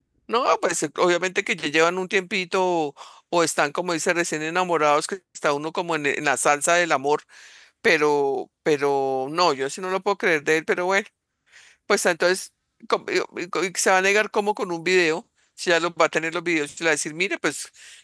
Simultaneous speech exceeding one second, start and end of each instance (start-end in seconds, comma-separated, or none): none